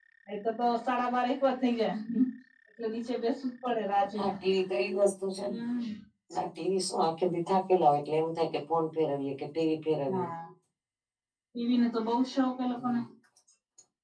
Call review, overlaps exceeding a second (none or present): none